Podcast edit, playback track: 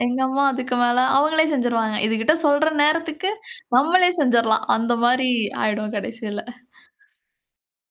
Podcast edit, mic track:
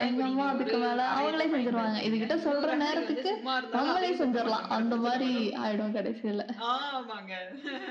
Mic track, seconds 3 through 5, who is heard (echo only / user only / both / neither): both